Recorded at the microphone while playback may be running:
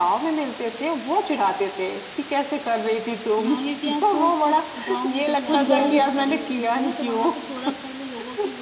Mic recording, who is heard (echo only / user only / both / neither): both